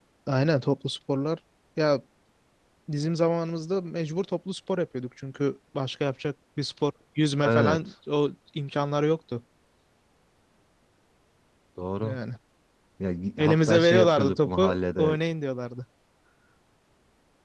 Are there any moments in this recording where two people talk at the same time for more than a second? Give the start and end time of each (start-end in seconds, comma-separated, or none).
13.4-15.1